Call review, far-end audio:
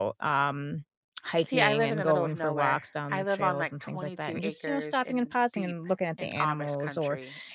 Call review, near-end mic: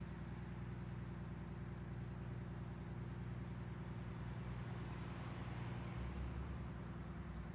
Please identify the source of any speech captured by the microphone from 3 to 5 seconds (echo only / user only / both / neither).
neither